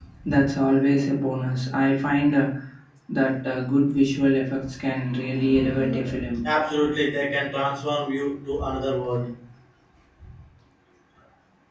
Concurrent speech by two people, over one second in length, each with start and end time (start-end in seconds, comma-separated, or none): none